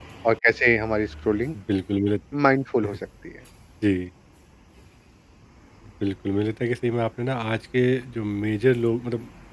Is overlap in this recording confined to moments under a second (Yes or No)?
Yes